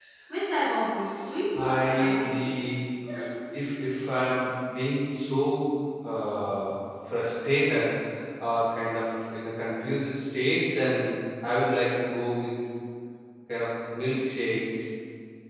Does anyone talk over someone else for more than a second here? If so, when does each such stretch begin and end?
1.0-2.5

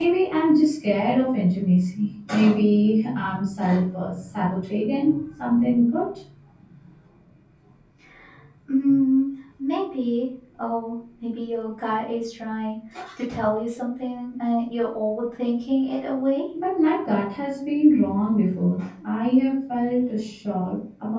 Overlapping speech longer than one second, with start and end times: none

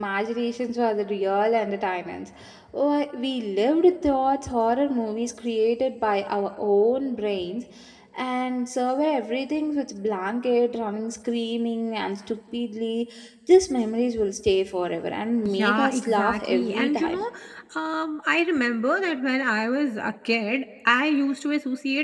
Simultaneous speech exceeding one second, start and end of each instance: 15.6-17.2

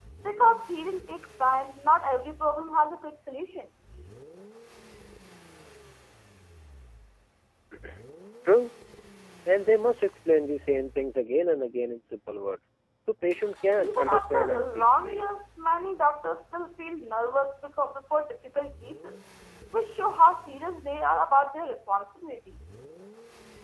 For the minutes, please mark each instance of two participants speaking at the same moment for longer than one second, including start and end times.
13.8-15.2

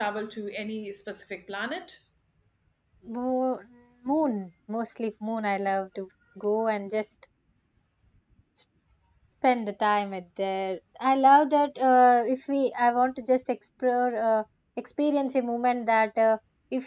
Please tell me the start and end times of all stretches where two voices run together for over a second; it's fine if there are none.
none

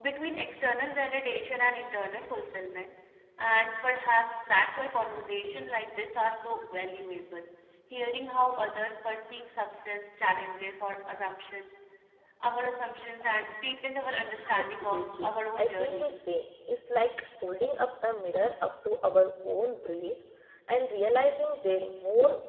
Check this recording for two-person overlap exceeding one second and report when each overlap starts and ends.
14.5-16.1

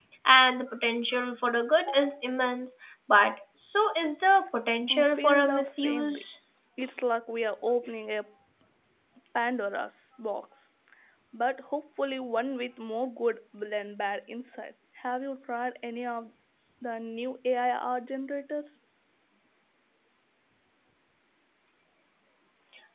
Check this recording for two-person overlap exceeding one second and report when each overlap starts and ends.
4.9-6.2

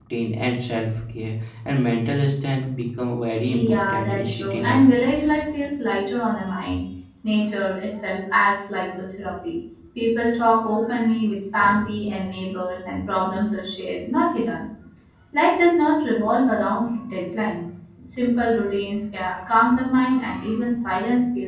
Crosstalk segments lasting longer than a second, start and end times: 3.5-4.8

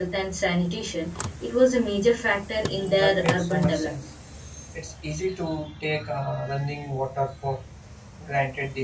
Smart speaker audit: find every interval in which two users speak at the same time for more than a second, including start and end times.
2.6-3.9

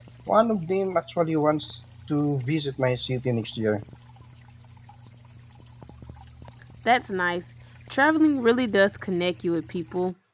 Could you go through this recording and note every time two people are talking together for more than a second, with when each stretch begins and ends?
none

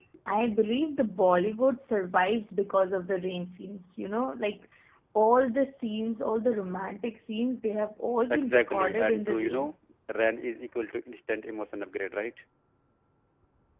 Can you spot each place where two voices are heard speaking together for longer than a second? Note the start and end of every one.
8.3-9.7

